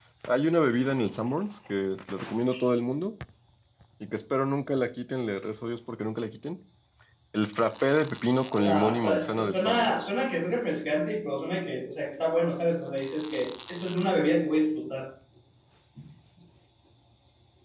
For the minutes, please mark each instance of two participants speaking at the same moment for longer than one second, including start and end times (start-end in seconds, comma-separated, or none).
8.5-10.1